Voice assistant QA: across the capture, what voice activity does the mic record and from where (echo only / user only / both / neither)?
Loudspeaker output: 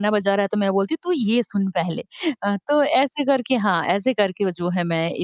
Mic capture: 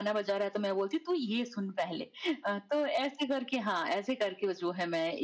echo only